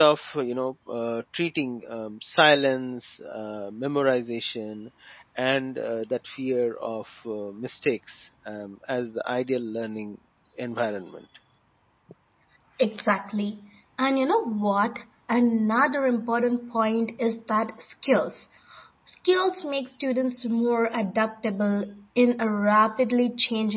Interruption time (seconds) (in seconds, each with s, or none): none